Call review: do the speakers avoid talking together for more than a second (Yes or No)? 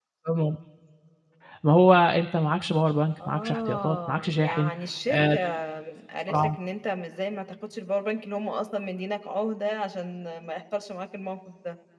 No